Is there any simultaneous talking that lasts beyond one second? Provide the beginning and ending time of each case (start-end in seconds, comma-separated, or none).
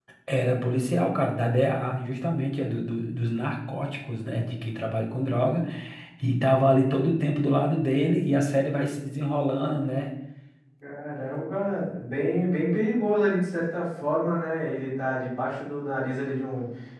none